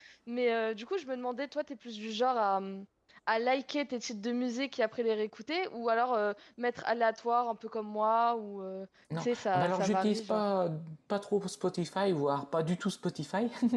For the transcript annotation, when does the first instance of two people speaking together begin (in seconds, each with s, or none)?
9.1 s